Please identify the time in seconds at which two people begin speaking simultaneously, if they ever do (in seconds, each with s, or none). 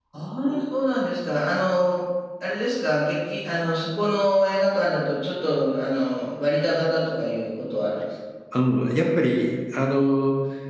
none